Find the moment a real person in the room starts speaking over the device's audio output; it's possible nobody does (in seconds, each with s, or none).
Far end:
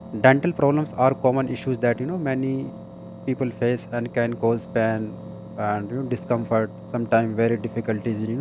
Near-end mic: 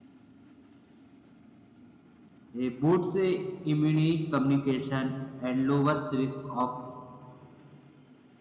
2.5 s